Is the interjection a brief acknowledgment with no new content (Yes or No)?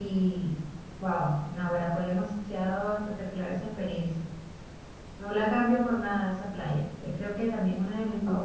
No